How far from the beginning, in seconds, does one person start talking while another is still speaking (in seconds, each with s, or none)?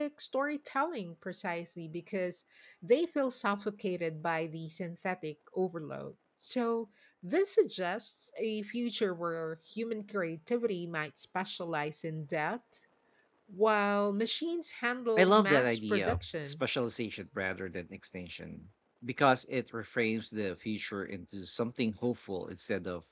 15.2 s